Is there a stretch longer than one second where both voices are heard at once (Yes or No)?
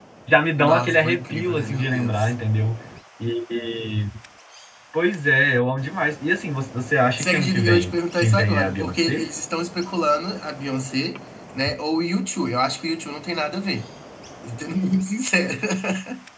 Yes